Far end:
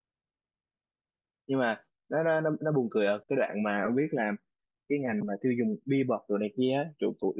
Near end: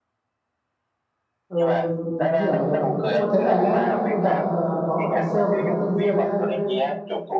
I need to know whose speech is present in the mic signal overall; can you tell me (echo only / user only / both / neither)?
both